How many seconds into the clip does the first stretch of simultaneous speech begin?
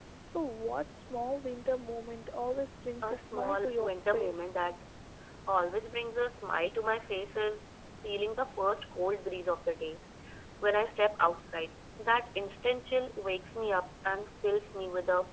3.0 s

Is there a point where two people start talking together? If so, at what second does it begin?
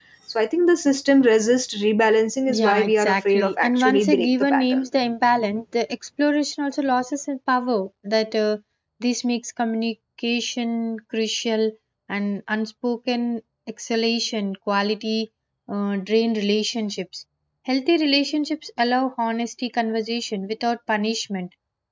2.5 s

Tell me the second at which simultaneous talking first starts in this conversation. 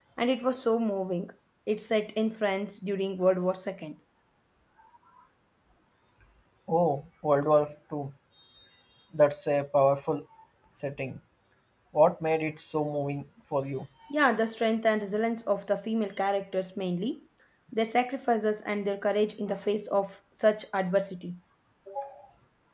none

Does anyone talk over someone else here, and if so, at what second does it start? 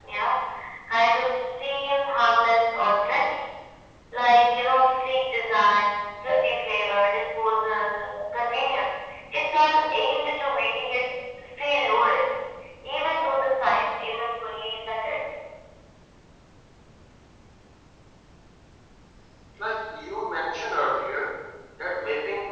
none

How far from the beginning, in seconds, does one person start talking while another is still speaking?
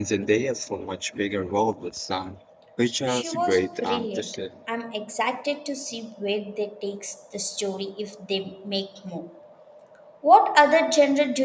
3.1 s

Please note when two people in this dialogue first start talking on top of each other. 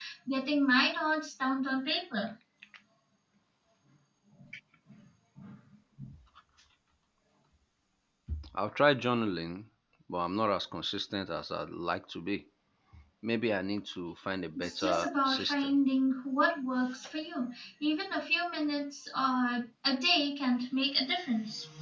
14.6 s

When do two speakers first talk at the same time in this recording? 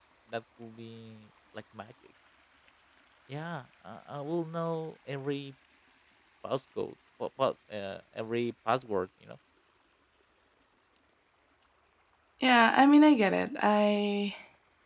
none

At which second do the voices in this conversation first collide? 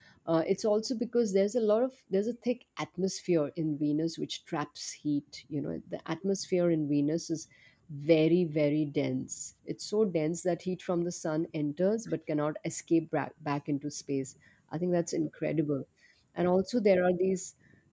none

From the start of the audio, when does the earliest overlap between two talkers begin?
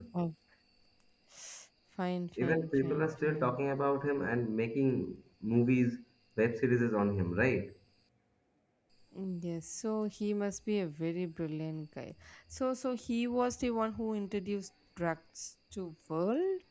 2.4 s

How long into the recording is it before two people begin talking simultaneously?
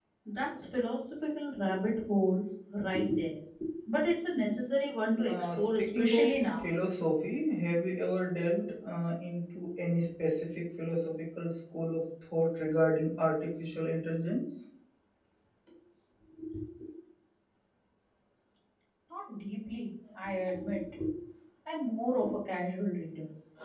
5.3 s

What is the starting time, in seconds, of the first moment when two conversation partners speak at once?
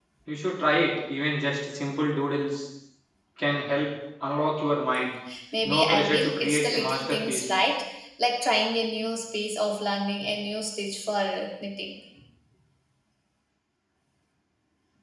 5.6 s

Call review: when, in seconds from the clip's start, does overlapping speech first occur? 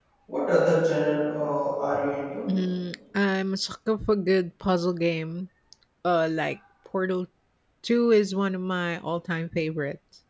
none

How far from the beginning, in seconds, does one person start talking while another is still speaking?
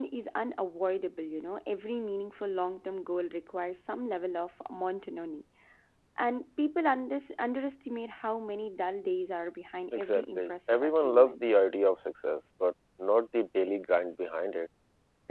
9.9 s

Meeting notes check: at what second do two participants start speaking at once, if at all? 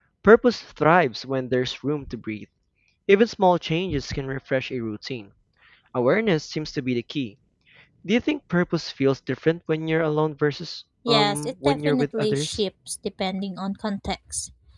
11.1 s

